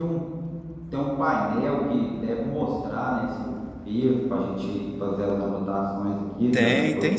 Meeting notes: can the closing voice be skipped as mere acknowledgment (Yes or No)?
No